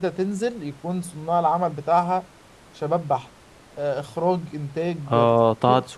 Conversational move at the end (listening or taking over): taking over